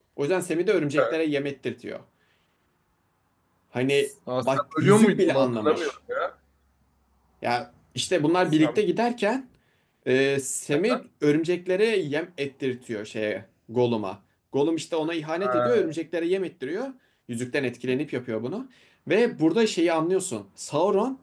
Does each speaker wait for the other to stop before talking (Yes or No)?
No